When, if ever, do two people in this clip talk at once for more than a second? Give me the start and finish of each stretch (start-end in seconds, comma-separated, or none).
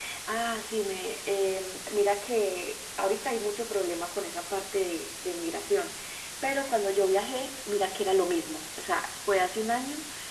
none